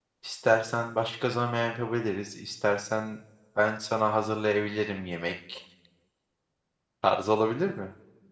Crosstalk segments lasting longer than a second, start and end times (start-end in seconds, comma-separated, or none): none